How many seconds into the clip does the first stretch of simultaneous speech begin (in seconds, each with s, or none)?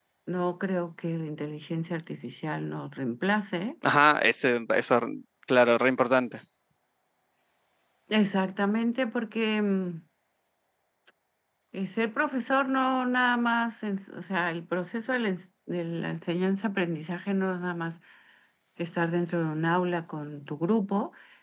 none